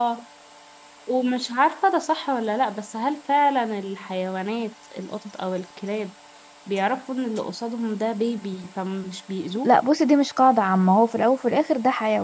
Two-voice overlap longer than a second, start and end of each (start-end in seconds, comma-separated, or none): none